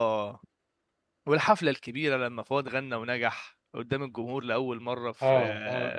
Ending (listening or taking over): taking over